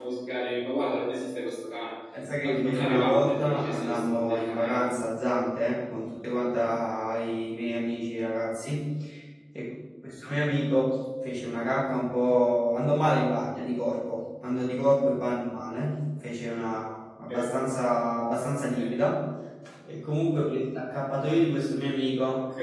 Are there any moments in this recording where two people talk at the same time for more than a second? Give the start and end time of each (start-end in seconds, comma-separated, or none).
2.4-4.8